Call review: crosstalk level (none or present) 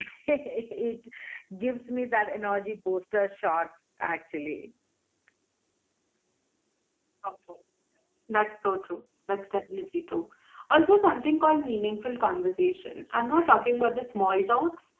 none